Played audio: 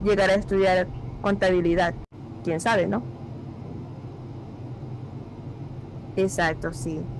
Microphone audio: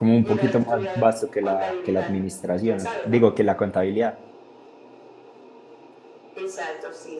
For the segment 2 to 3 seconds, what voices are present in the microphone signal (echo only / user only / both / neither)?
both